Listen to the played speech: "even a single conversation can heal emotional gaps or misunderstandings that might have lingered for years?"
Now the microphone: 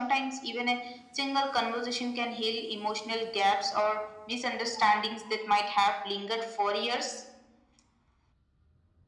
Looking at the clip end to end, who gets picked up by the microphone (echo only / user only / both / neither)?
echo only